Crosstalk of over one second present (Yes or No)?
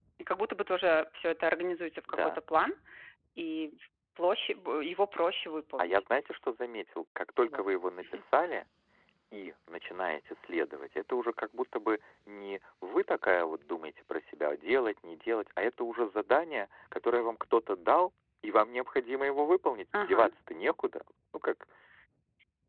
No